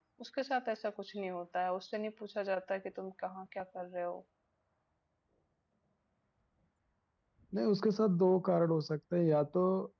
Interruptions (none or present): none